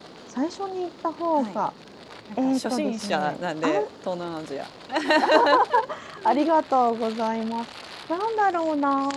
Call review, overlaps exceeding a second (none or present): present